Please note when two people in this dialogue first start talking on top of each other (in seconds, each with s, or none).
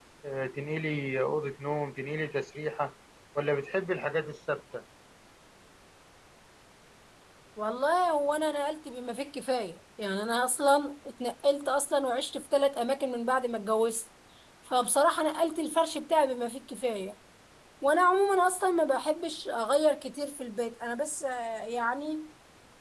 none